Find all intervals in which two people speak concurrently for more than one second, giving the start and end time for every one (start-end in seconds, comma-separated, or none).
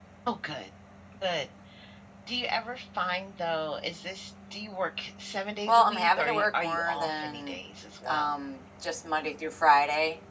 5.7-7.6